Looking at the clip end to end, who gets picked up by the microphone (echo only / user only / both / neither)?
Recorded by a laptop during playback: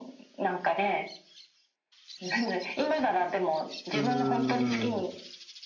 both